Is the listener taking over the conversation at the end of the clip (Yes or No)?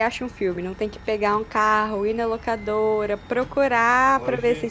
No